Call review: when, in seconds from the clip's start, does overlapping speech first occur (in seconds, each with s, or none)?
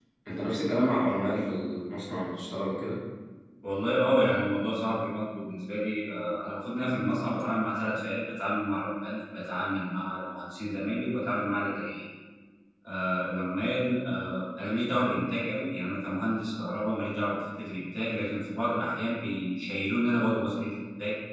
none